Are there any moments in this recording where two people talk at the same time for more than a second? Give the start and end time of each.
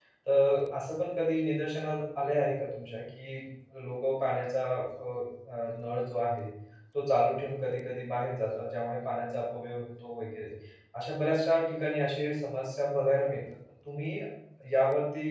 none

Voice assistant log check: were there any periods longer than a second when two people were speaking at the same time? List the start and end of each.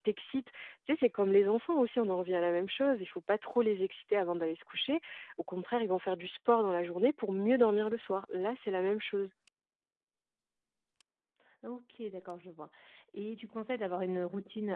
none

